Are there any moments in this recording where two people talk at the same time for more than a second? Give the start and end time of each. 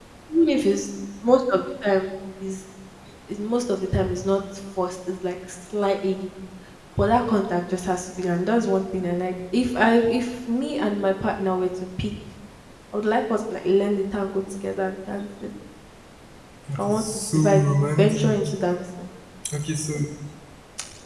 16.7-18.5

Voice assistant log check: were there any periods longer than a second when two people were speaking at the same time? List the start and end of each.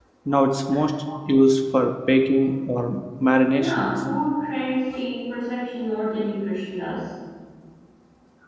none

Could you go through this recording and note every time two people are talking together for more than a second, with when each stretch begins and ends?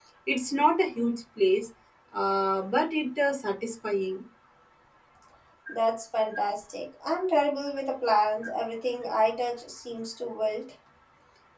none

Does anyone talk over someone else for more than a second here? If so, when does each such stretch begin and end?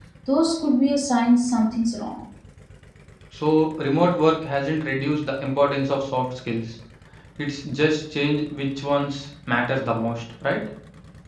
none

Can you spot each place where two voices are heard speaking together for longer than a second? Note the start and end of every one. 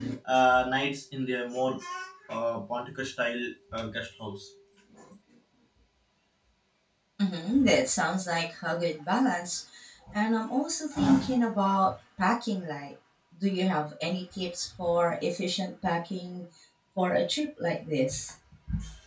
none

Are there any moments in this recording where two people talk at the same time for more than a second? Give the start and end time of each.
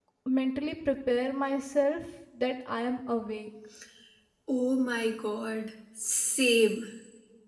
none

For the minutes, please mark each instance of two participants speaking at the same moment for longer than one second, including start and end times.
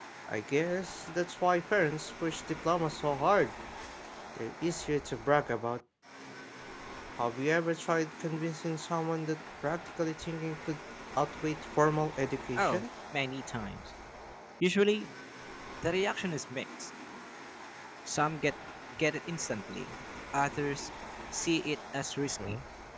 none

